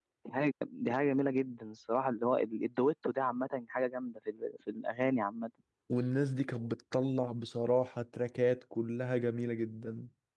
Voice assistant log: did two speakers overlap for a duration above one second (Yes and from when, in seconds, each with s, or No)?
No